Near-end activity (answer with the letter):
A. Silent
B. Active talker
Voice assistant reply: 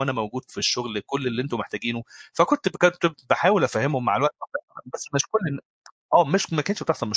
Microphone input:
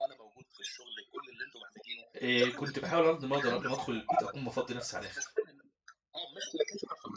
B